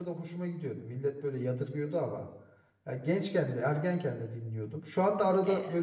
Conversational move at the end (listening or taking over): listening